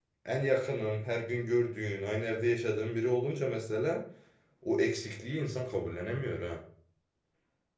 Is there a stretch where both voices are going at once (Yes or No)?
No